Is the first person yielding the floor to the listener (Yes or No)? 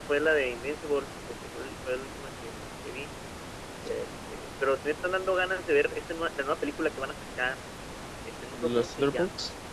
No